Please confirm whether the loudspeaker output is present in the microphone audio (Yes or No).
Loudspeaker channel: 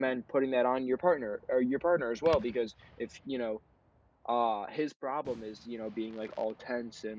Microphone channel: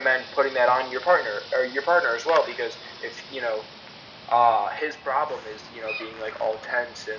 Yes